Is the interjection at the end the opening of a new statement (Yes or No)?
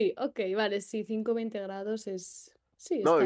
Yes